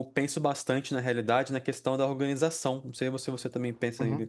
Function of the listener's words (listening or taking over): taking over